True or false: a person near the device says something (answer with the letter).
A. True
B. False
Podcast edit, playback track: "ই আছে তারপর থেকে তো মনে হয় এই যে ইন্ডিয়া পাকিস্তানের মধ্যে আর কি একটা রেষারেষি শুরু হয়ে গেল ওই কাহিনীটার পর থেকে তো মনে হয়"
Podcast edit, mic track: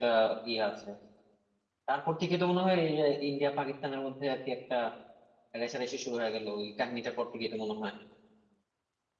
B